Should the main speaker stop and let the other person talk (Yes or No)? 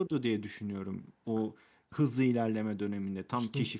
No